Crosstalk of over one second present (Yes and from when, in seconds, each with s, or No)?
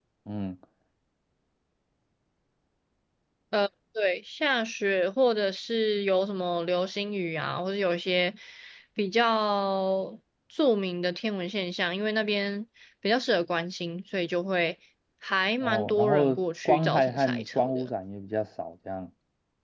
Yes, from 15.6 s